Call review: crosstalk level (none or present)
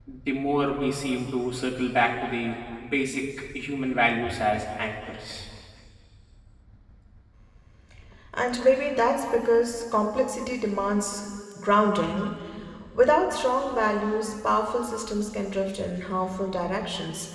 none